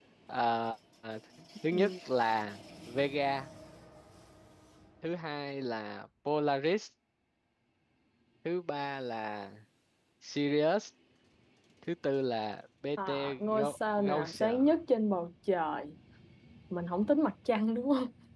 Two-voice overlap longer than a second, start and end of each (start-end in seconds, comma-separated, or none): 13.1-14.6